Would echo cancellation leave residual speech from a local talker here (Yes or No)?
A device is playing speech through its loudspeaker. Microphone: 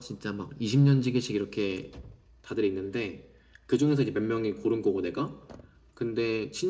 No